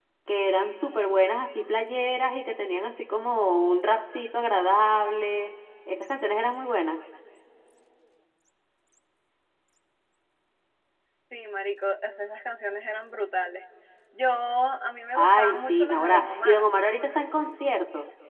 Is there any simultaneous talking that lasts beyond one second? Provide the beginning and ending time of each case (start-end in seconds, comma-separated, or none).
15.2-16.6